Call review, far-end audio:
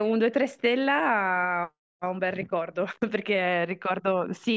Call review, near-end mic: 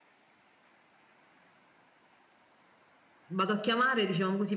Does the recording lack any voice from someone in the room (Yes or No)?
No